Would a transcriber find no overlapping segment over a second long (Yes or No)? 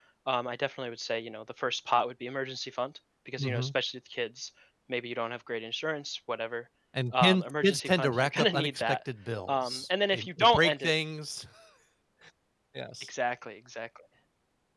No